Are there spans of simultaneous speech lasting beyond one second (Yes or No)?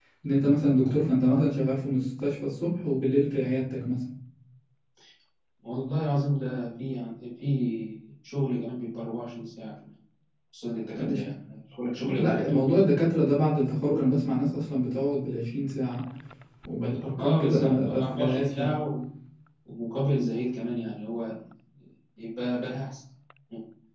Yes